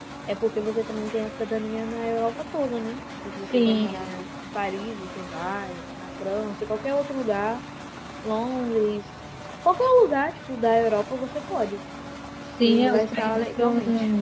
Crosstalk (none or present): present